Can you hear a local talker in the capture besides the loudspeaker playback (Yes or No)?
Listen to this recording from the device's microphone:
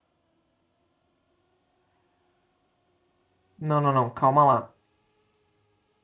Yes